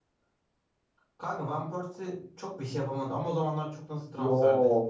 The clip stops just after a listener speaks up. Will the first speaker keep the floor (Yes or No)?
No